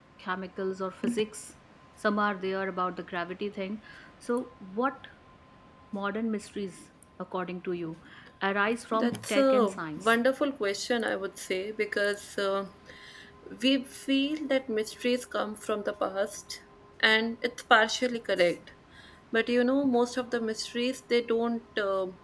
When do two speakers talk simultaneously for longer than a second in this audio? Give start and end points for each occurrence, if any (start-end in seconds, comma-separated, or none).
8.9-10.1